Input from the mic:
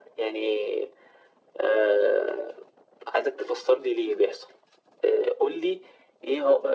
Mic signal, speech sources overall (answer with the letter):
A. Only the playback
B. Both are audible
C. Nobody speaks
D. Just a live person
A